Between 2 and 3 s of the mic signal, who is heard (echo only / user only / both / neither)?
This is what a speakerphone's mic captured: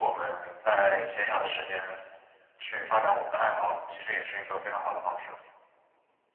echo only